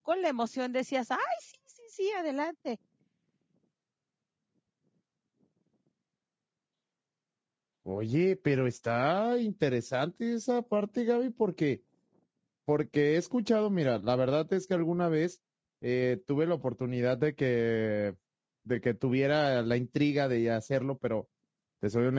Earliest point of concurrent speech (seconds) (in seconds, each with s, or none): none